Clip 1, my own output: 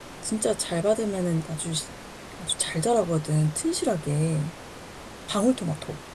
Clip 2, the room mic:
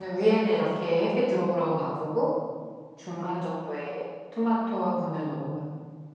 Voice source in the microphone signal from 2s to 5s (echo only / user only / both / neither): user only